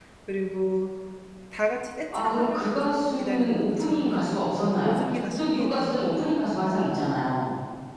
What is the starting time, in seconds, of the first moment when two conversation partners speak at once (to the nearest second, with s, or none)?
2 s